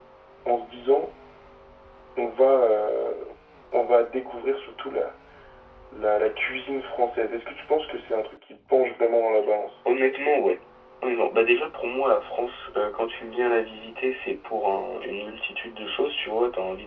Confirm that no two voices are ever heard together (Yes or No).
Yes